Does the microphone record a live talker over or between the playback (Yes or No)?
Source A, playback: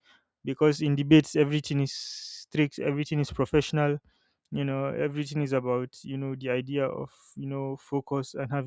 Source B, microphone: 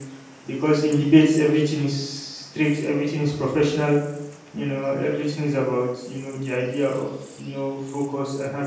No